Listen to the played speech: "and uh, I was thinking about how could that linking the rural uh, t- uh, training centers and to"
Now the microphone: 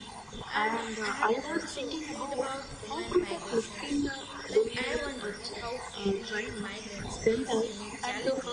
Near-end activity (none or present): present